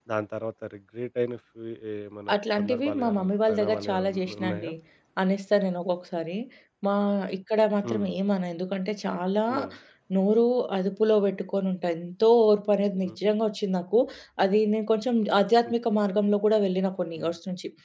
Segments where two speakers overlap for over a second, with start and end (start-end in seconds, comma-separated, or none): 2.3-4.7